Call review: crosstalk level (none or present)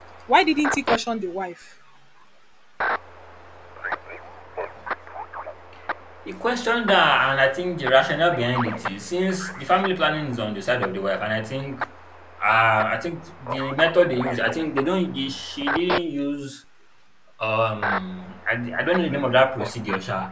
none